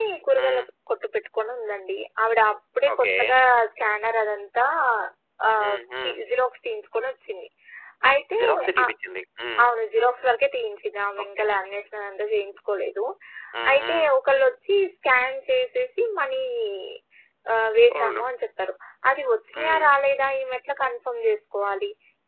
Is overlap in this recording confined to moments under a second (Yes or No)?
Yes